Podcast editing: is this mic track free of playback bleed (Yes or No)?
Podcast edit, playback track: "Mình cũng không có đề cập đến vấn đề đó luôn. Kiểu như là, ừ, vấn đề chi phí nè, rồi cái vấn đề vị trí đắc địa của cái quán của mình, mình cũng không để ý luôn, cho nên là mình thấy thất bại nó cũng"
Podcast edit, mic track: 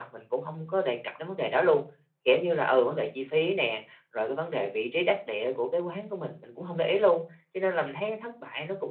No